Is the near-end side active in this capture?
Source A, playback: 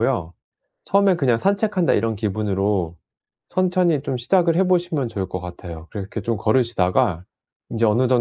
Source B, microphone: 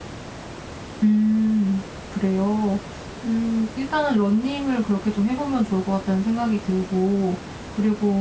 Yes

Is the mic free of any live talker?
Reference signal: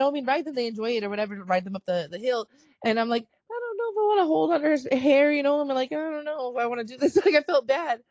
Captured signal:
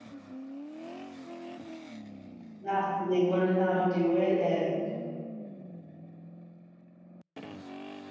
No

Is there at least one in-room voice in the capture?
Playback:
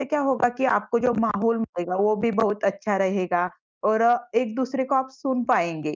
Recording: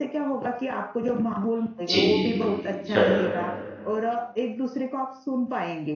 Yes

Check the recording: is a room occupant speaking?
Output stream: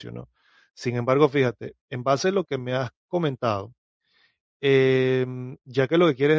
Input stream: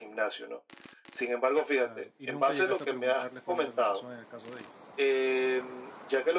Yes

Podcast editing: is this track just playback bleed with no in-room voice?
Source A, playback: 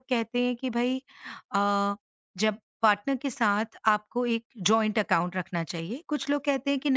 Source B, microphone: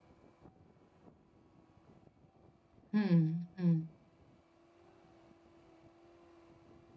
No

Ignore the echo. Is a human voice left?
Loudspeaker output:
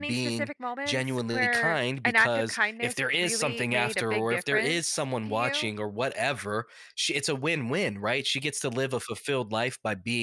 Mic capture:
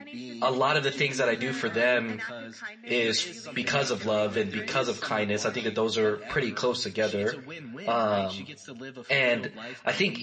Yes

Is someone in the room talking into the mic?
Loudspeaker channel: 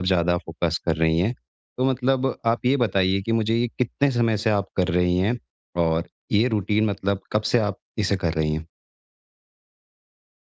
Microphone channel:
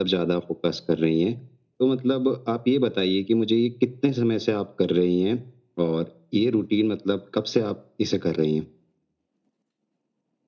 No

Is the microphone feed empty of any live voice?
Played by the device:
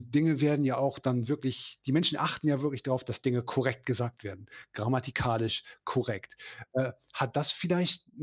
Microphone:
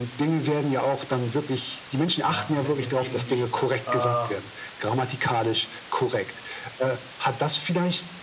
No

